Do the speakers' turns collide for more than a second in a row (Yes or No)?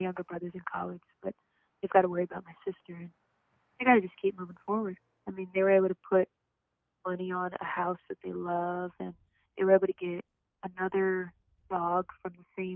No